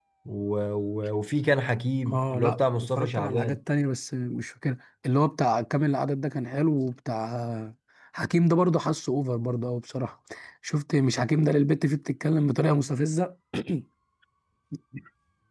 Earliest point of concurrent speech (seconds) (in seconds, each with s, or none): 2.0 s